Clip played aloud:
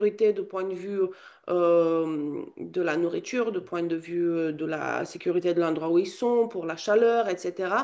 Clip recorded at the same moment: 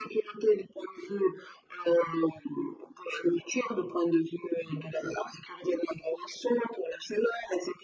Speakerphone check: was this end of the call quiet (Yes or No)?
Yes